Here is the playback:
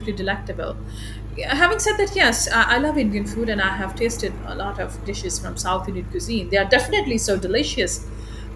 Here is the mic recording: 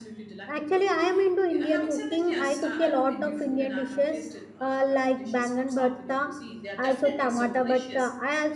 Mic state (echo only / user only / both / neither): both